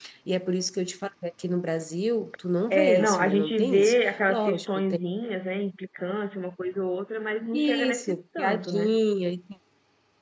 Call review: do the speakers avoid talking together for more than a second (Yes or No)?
No